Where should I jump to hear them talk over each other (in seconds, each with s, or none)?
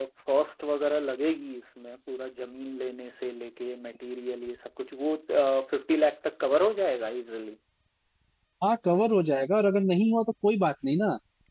none